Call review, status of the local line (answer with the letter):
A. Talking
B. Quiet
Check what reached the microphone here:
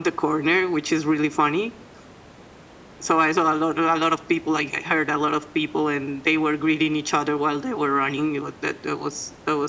B